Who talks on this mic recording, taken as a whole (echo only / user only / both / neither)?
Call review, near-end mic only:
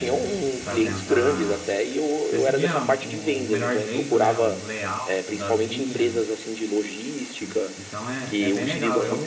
both